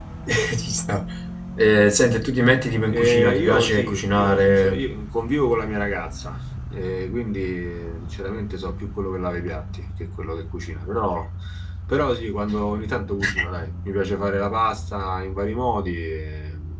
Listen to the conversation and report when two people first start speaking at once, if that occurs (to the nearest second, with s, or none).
3 s